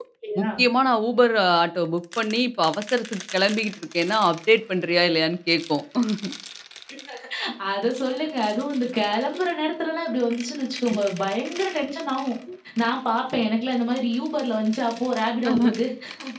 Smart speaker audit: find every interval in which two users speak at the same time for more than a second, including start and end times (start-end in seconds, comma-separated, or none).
none